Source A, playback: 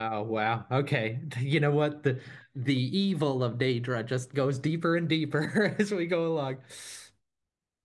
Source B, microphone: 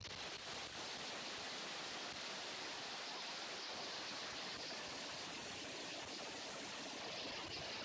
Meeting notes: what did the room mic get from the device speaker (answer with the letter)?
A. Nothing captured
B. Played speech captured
A